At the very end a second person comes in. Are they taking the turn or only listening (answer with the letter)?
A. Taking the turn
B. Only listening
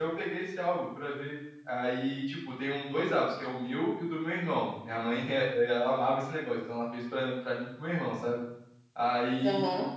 B